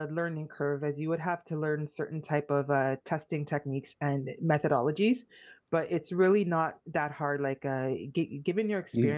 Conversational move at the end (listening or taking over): listening